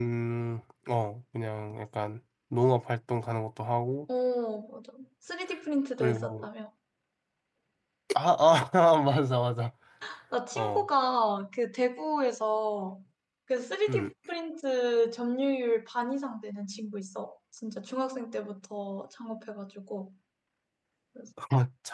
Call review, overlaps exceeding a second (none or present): none